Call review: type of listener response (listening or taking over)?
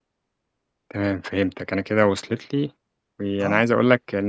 listening